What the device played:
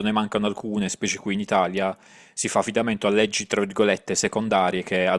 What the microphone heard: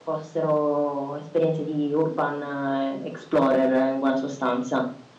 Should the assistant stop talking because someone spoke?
Yes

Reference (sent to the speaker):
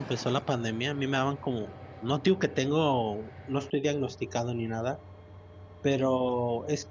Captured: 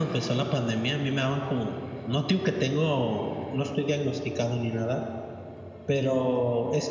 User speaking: No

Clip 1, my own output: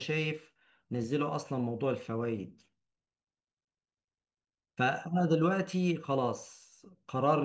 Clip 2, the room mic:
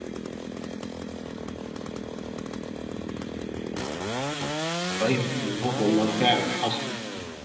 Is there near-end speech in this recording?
Yes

